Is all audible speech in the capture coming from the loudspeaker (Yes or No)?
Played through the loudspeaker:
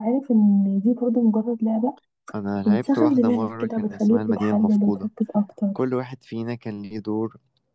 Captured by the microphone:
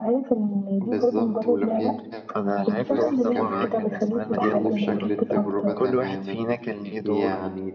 No